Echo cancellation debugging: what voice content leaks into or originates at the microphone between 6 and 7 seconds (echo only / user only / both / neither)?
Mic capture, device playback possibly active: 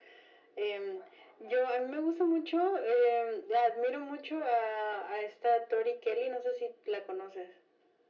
echo only